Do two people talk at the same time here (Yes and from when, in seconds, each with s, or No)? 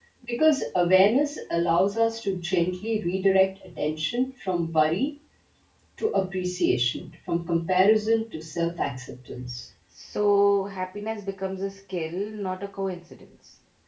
No